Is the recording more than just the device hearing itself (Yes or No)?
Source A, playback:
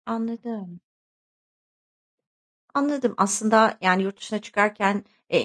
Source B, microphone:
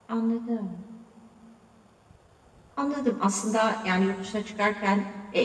No